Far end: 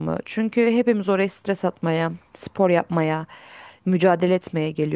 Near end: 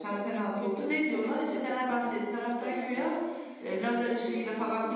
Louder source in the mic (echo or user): user